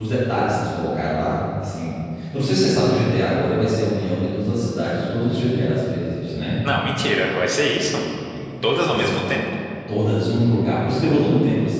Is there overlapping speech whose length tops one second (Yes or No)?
No